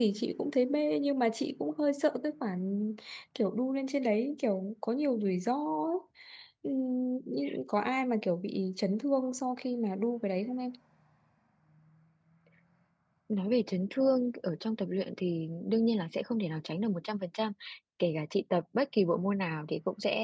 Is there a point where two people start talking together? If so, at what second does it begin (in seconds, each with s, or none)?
none